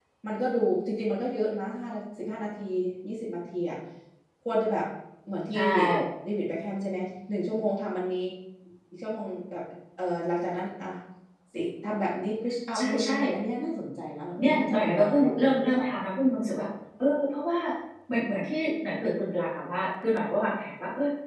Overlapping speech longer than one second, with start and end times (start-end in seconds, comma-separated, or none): 14.4-15.9